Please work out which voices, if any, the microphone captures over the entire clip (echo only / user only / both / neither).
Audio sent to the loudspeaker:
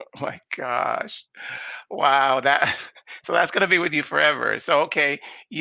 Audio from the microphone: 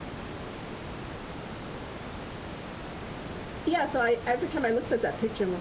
user only